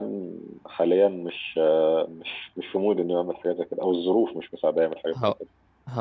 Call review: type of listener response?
taking over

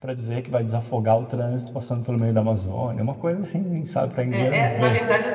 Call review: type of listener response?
taking over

